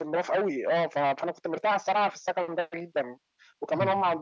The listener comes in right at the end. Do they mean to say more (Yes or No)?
No